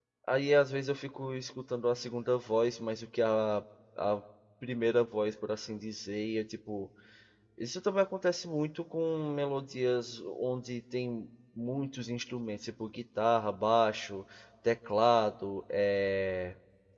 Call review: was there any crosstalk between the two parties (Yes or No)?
No